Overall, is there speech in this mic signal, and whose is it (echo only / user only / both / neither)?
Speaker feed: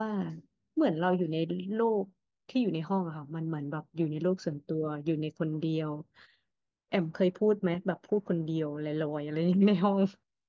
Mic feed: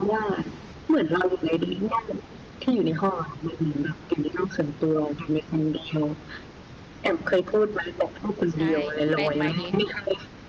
both